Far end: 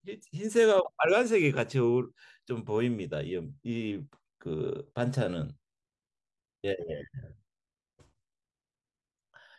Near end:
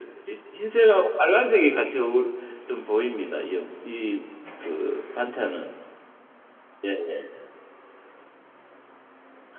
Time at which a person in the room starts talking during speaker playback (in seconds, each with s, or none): none